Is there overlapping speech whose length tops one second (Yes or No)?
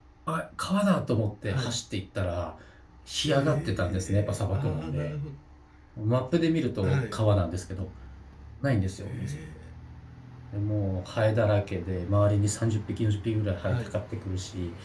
Yes